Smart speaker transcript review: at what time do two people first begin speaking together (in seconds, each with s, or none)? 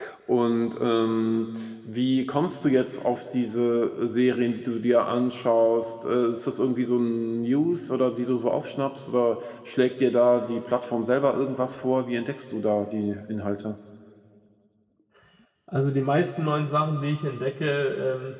none